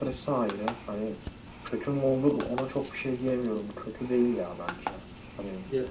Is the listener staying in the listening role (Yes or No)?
No